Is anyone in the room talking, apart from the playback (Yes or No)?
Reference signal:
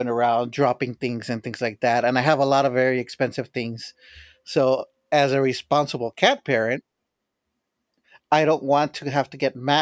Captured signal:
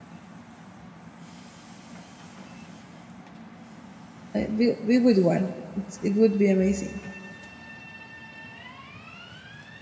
Yes